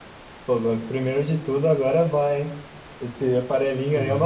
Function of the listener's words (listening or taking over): listening